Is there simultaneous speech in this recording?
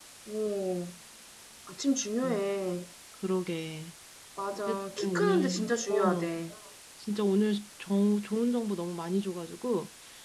Yes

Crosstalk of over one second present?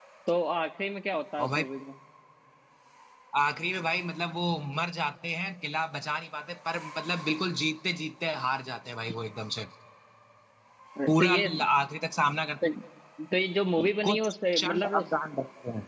Yes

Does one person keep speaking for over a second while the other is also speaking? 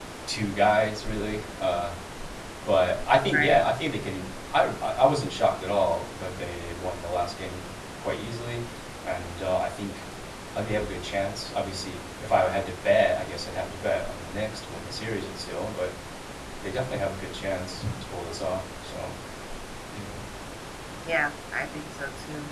No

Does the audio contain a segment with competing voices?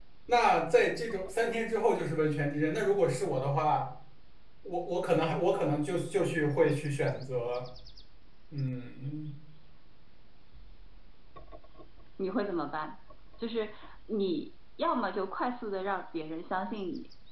No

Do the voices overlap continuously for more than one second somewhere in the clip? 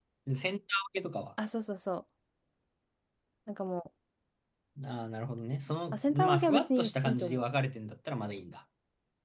Yes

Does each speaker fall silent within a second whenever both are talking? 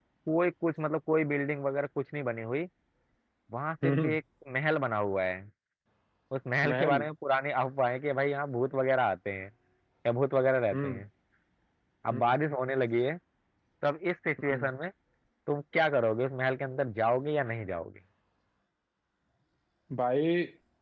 Yes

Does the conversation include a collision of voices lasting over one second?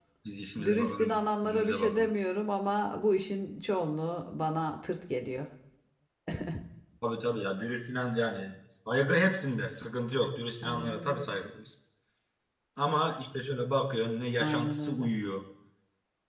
Yes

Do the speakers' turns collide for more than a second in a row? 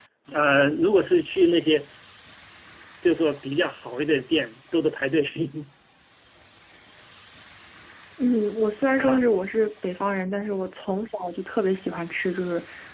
No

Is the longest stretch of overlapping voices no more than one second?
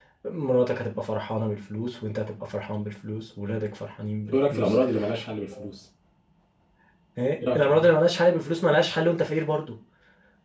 Yes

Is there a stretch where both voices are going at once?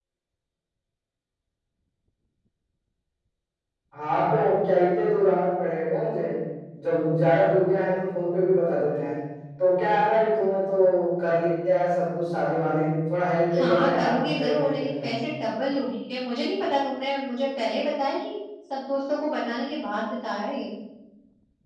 Yes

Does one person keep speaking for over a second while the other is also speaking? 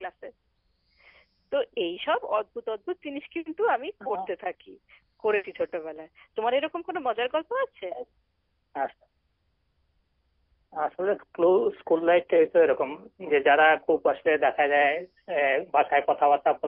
No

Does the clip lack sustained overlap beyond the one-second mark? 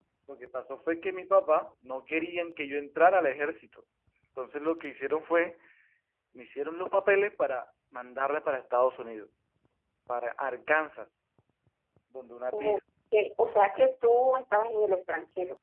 Yes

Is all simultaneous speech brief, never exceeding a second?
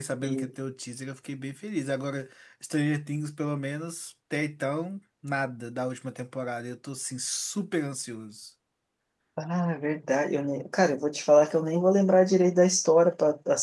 Yes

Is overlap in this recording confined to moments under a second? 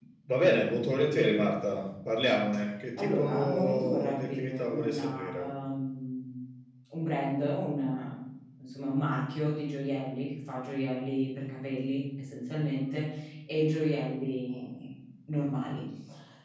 No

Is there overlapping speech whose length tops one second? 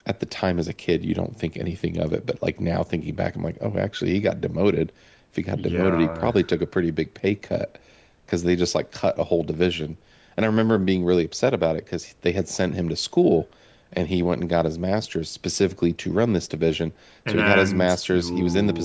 Yes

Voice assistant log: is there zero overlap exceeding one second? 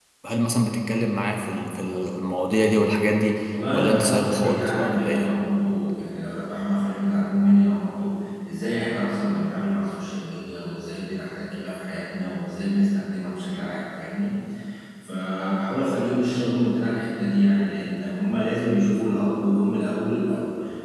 No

